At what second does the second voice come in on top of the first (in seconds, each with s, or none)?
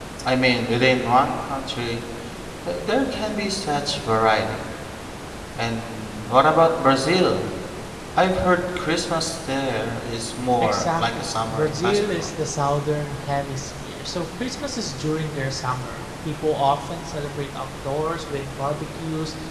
10.6 s